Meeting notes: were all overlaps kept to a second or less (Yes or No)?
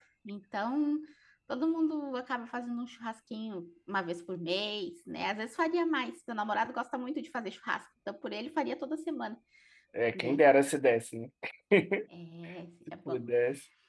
Yes